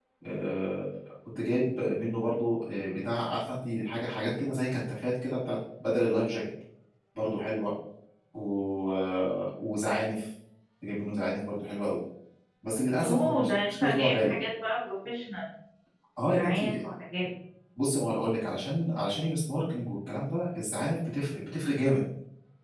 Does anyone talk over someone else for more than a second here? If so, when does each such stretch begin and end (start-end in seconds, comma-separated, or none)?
13.0-14.3